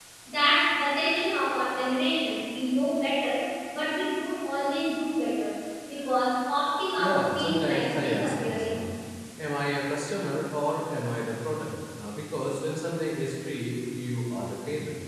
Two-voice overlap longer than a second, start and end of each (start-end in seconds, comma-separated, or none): 7.0-8.8